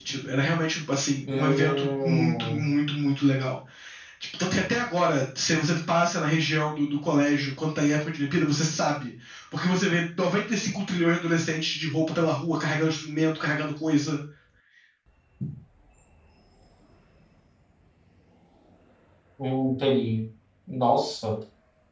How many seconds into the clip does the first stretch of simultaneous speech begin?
1.2 s

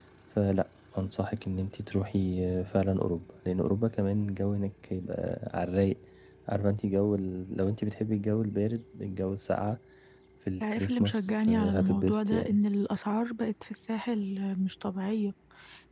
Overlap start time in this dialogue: 10.6 s

